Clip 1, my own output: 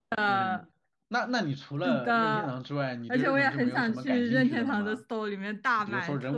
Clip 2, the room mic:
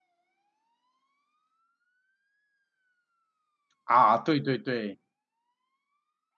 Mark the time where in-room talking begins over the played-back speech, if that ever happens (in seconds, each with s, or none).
3.8 s